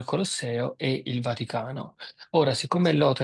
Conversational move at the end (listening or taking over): listening